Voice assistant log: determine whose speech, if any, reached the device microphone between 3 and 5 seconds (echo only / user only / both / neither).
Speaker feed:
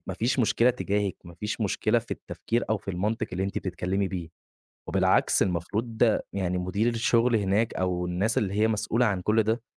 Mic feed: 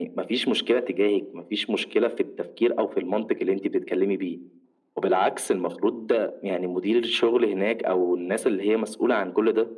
echo only